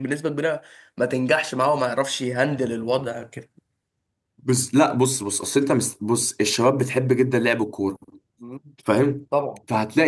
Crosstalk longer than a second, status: none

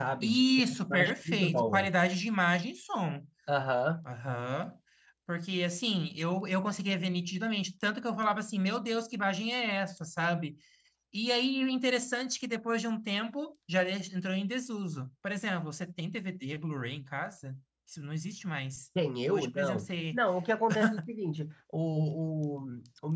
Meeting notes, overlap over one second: present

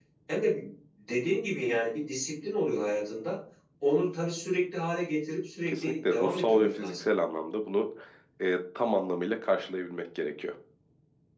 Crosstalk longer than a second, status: present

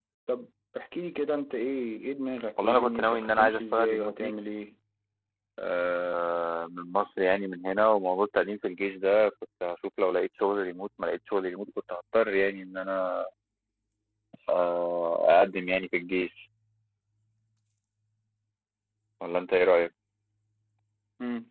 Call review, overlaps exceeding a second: present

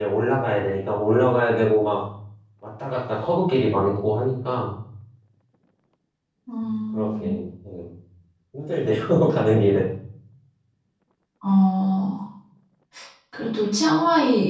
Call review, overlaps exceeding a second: none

